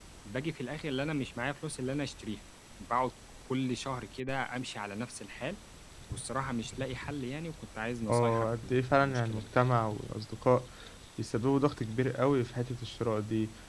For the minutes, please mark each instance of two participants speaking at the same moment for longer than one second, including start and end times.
8.1-9.5

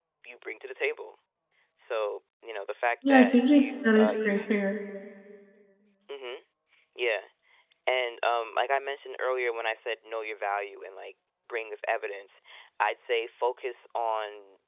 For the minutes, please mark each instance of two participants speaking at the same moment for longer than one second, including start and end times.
3.1-4.4

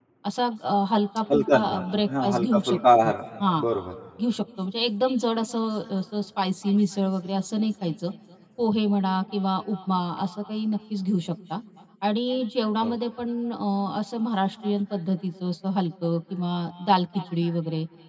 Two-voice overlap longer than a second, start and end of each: 1.3-3.1

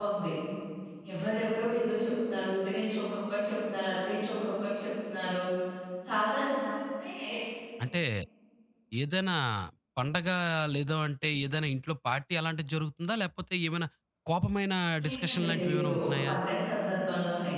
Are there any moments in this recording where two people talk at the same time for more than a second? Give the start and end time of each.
15.0-16.3

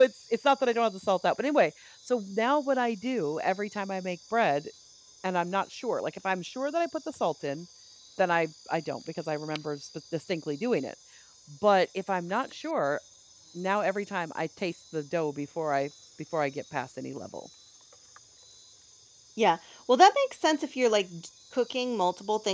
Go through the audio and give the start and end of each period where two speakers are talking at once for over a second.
none

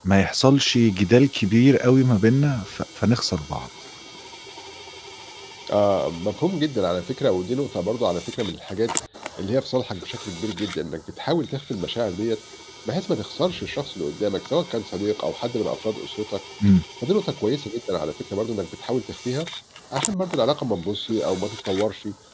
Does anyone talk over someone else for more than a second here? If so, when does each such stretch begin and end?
none

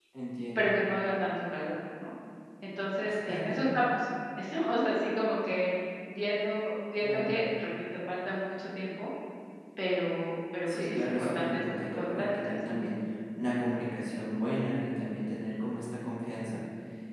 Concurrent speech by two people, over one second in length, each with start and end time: 10.7-12.8

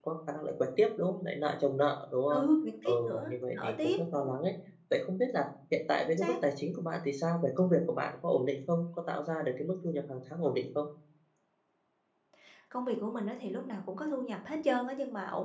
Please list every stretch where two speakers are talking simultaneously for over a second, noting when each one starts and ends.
2.9-4.3

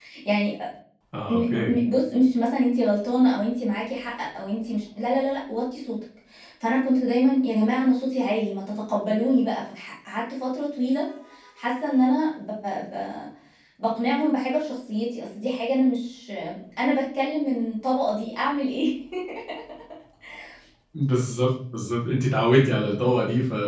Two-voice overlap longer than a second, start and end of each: none

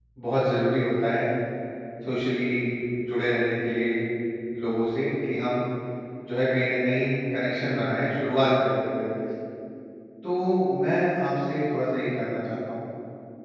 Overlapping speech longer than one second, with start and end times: none

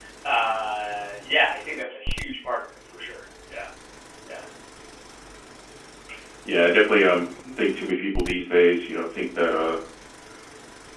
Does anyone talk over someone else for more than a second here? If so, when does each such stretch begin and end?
none

